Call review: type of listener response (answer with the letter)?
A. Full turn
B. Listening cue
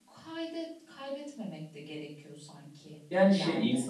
A